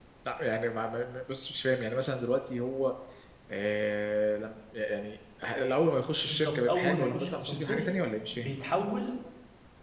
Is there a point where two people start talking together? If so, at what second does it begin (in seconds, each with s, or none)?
6.2 s